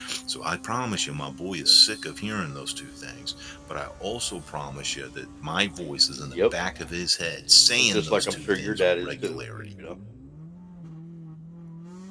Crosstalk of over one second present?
Yes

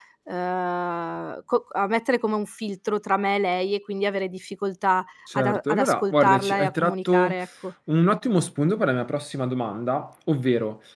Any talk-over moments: Yes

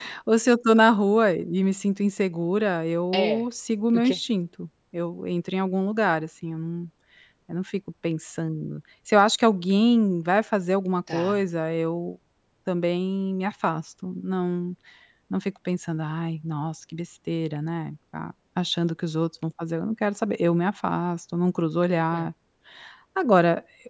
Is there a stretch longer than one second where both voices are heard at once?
No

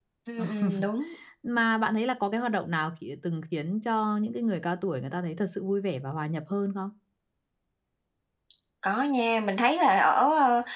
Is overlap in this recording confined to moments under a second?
Yes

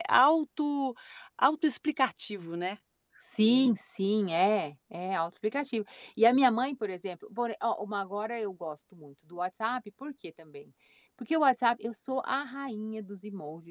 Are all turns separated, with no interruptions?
Yes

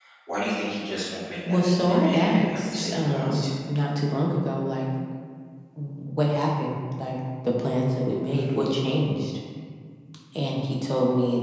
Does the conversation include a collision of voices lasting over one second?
Yes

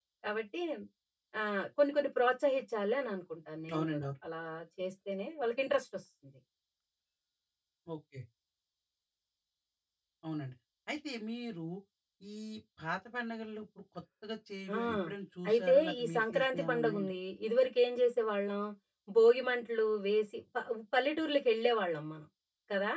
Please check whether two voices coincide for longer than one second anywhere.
Yes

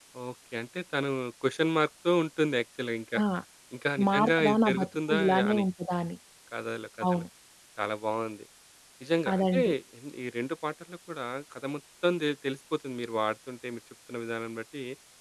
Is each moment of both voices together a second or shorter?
No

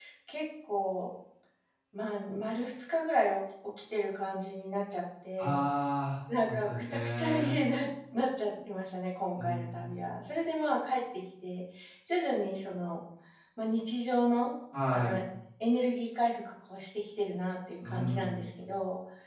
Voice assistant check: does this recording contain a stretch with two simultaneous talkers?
Yes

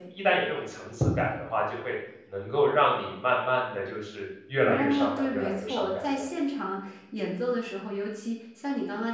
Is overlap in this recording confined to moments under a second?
No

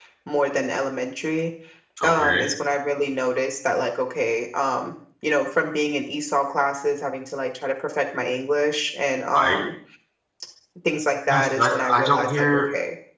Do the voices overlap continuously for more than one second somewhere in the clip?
Yes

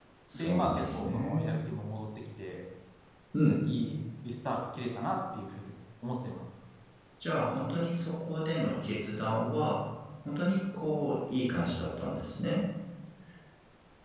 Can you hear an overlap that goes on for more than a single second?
Yes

